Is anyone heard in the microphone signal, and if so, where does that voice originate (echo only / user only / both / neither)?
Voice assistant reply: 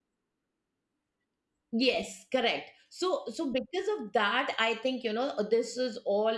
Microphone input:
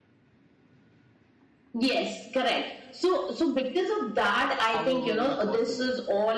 both